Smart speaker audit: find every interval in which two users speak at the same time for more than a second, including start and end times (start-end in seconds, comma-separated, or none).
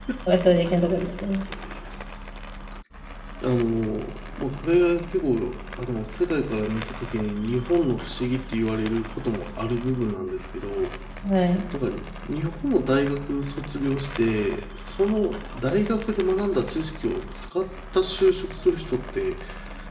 none